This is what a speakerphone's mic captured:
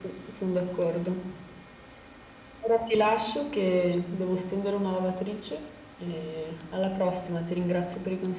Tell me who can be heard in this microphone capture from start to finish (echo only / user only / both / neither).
echo only